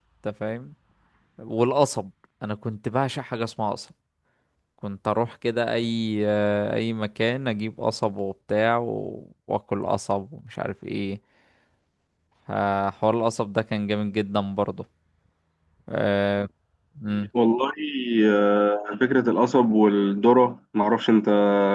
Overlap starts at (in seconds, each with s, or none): none